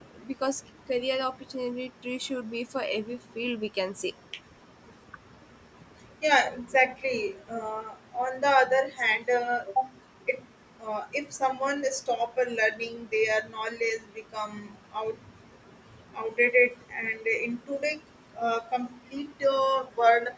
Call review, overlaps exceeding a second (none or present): none